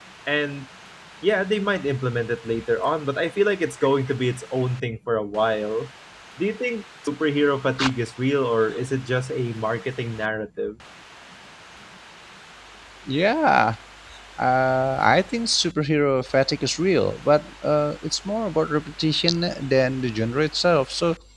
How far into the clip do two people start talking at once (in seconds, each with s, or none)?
none